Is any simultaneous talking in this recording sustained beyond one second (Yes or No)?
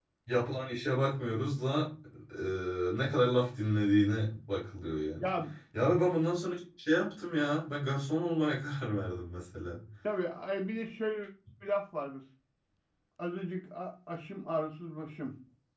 No